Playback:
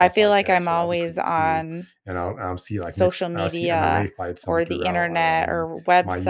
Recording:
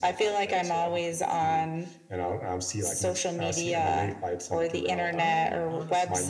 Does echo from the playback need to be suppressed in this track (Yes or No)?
Yes